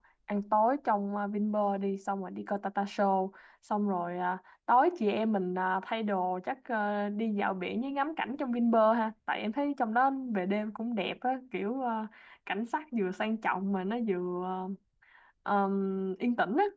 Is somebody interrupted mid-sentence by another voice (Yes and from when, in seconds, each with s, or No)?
No